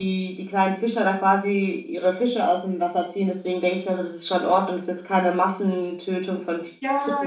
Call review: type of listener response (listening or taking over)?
taking over